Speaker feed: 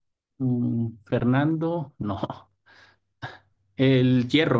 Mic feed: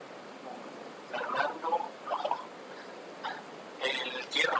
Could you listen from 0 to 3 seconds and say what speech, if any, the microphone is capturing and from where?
echo only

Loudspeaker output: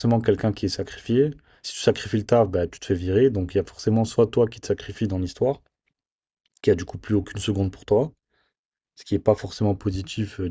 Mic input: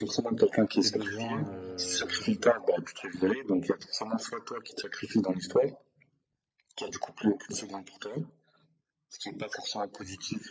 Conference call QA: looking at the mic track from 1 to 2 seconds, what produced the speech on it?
both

